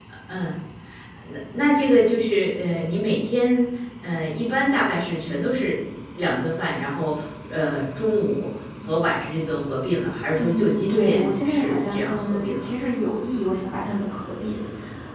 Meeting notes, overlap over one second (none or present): present